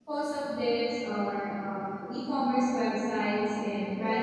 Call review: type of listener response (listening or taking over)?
listening